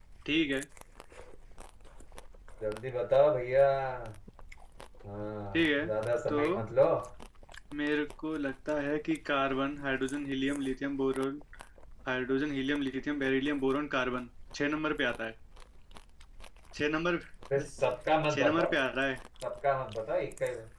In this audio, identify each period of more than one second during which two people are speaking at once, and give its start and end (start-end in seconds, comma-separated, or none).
none